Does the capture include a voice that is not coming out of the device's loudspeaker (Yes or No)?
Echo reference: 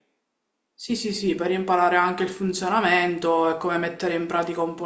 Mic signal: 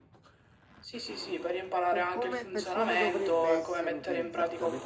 Yes